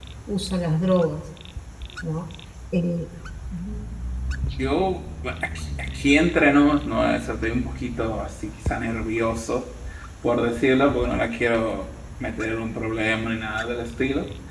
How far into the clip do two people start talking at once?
none

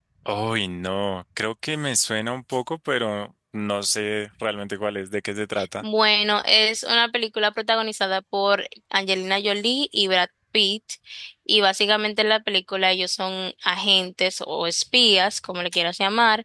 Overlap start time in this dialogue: none

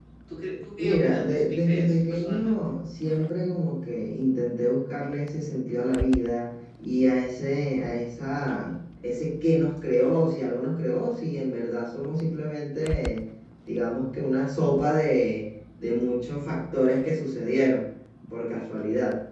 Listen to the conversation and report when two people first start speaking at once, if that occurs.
0.8 s

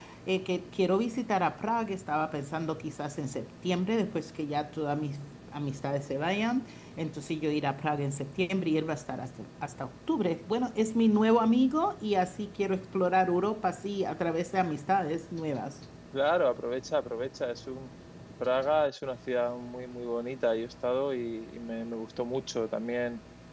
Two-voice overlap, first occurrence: none

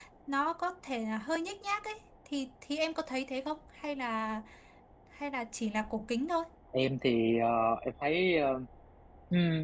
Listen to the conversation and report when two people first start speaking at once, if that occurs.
none

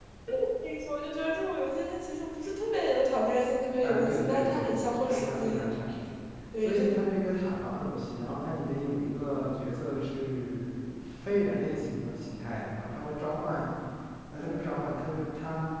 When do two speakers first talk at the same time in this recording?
3.8 s

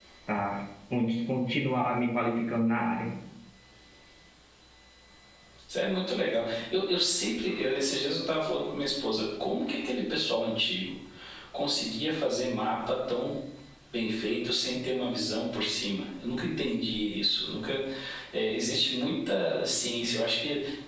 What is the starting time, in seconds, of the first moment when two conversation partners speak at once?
none

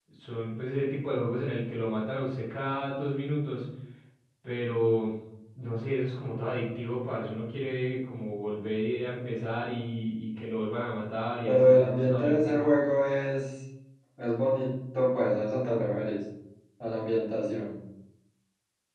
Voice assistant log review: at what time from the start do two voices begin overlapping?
11.4 s

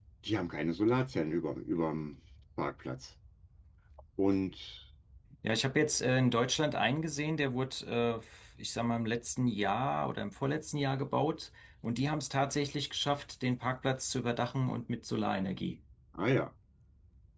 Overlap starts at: none

